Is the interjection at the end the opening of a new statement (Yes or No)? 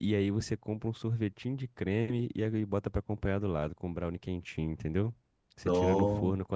No